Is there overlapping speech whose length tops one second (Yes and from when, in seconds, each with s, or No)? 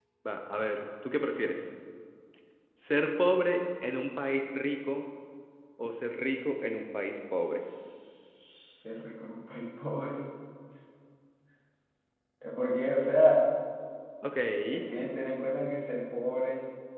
No